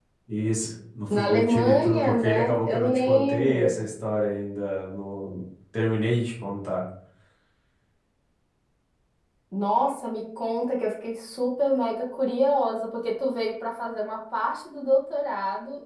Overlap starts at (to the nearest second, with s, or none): 1 s